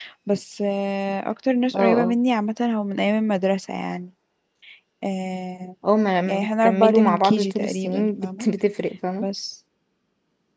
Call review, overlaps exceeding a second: present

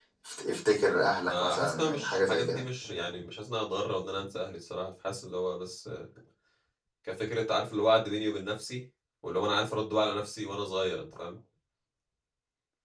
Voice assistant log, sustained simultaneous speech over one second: present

